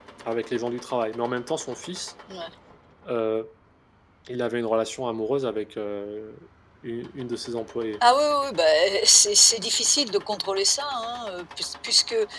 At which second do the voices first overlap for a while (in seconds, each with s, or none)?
none